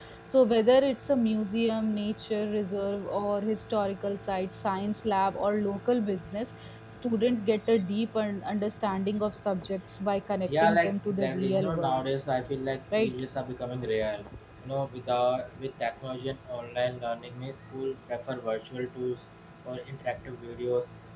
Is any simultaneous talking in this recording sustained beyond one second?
Yes, from 10.5 s

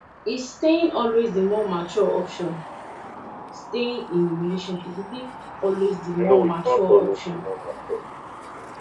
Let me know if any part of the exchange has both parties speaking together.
Yes, from 6.2 s

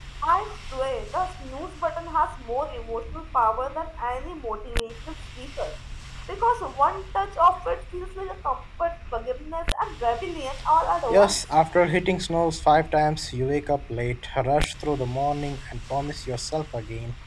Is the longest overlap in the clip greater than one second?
No

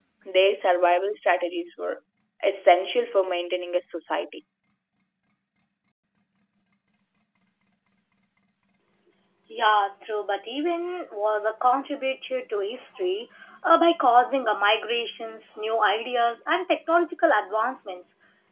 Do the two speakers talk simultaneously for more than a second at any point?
No

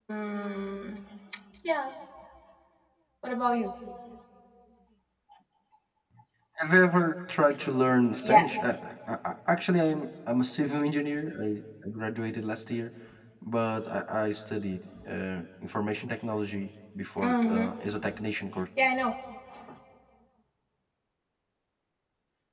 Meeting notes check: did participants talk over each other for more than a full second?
No

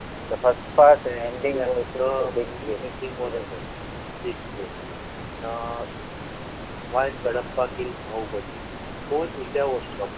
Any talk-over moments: Yes, from 1.5 s

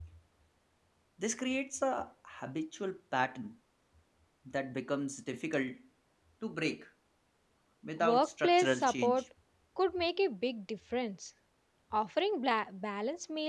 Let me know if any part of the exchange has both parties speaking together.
Yes, from 8.0 s

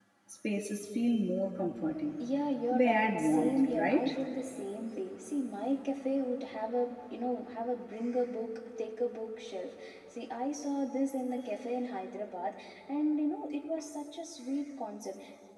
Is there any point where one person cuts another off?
Yes, from 2.7 s

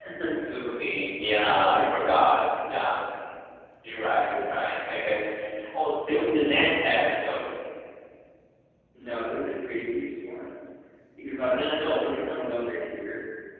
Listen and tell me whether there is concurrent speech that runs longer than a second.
No

